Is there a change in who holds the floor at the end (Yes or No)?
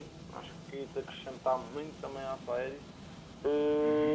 Yes